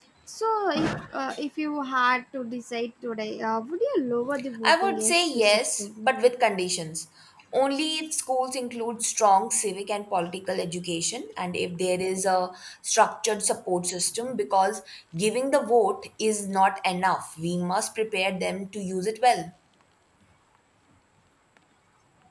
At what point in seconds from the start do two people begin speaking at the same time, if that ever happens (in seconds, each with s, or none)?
4.6 s